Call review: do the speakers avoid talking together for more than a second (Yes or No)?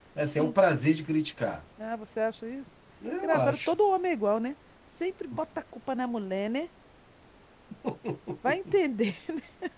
Yes